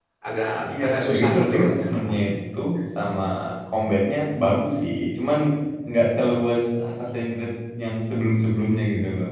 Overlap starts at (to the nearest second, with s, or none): 1 s